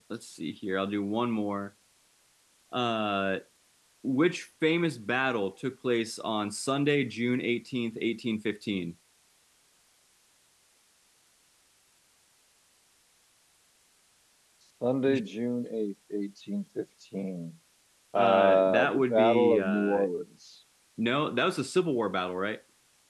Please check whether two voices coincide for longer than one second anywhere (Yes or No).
Yes